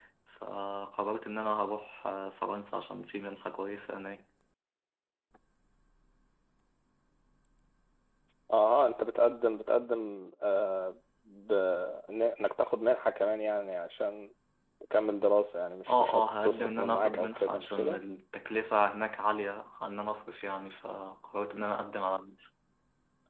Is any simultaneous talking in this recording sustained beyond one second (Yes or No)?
Yes